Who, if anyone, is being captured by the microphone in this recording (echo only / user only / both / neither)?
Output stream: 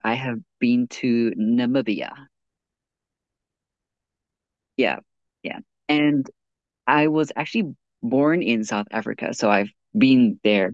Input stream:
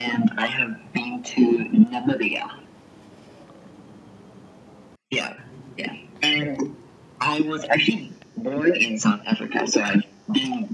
echo only